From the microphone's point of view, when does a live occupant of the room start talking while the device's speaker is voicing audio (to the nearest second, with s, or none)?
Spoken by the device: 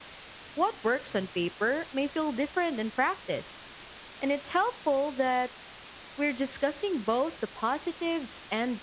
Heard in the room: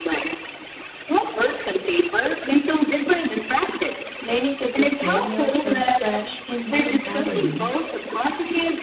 4 s